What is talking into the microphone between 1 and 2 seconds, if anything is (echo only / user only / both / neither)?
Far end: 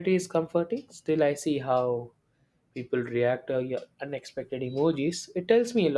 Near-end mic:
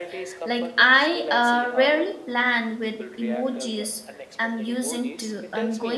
both